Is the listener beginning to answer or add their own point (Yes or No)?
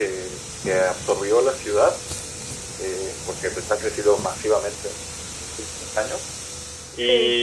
No